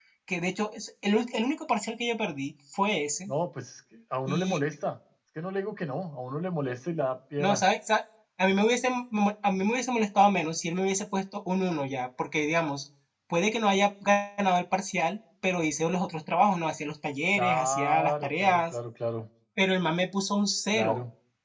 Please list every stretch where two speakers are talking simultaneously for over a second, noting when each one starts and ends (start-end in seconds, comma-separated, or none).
17.4-18.8